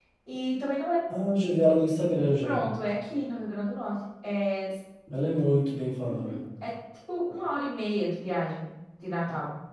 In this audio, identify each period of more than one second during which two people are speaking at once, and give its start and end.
none

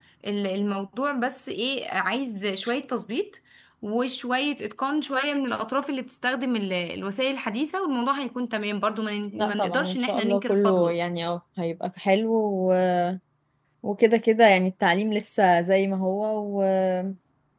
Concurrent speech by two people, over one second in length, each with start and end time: 9.4-10.9

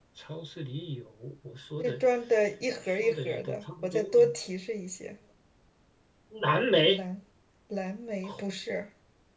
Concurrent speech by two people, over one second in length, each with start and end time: 3.0-4.3

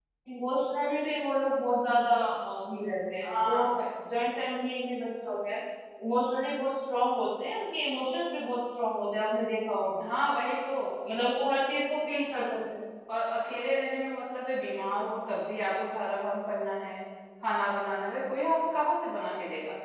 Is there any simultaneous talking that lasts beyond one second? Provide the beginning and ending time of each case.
none

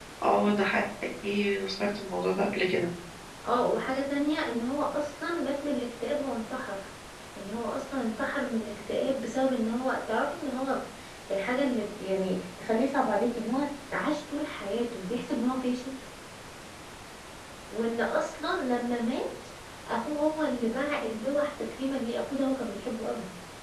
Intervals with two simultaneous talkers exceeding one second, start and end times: none

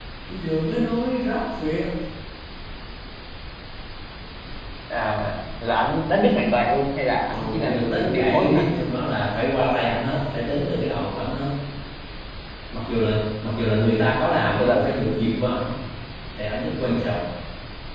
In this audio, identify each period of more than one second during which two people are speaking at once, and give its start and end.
7.3-8.8

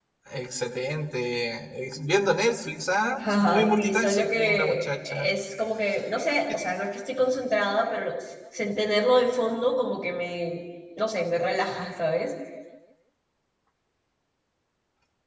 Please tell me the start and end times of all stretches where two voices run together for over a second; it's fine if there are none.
3.2-5.3

